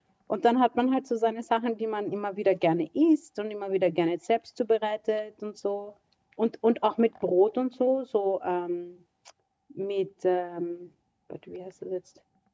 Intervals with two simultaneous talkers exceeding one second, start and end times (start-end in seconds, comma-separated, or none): none